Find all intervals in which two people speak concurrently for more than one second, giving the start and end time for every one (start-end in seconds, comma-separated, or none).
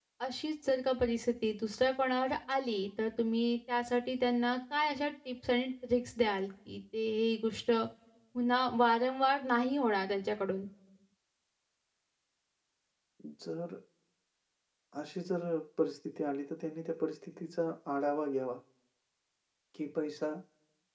none